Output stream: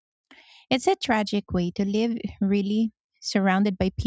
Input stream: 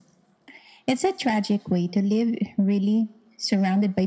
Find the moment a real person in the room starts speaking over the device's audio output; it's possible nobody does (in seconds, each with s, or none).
none